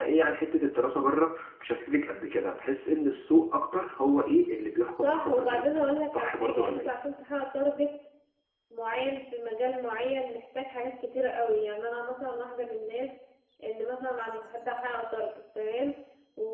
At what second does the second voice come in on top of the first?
5.0 s

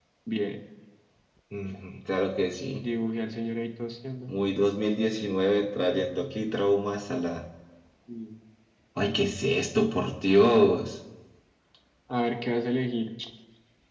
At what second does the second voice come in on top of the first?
none

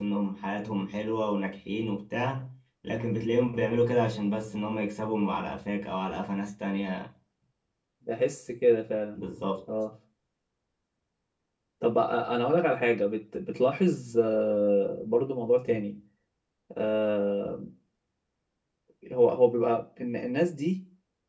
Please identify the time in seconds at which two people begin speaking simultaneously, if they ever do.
none

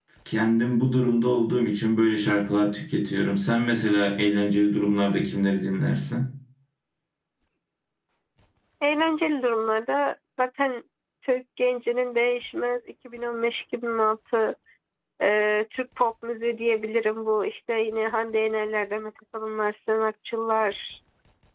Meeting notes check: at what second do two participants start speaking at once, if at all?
none

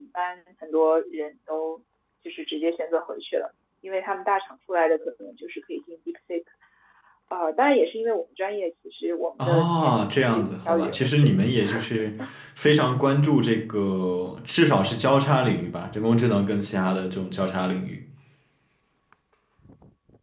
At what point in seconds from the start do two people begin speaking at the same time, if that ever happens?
9.4 s

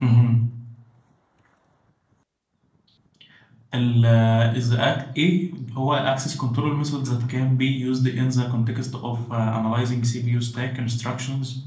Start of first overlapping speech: none

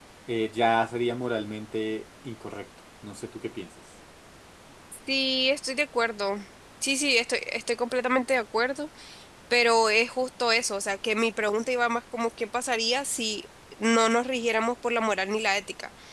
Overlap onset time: none

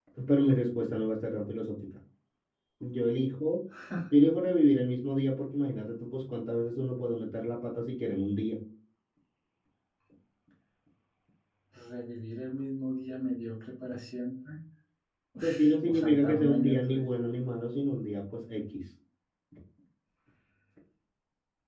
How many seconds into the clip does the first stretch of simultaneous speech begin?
15.4 s

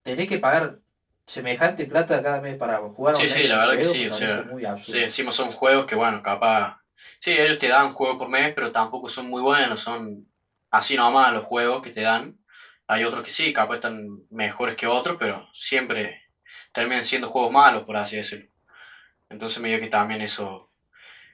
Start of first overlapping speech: 3.1 s

